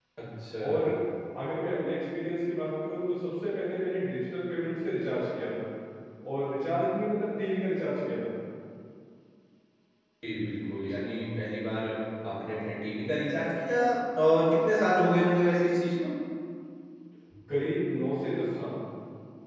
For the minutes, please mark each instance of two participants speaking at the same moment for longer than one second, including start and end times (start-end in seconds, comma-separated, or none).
none